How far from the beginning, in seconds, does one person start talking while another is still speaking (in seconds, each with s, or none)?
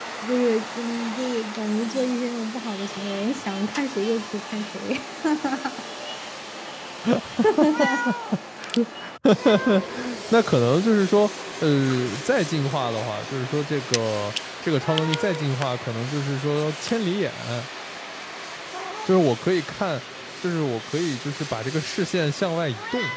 none